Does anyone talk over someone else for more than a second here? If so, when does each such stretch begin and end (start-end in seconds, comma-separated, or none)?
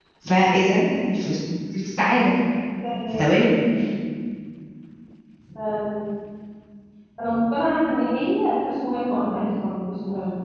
none